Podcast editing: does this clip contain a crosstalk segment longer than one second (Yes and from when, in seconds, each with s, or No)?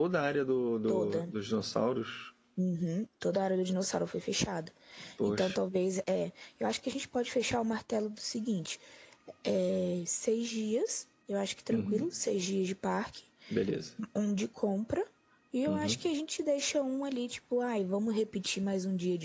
No